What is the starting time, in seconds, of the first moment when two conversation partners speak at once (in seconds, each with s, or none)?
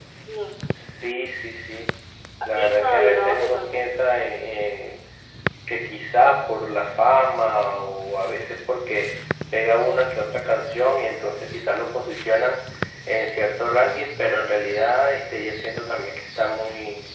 2.6 s